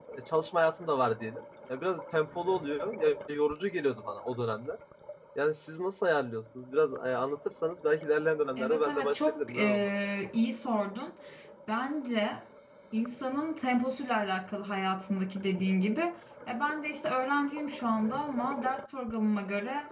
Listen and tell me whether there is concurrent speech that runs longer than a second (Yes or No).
Yes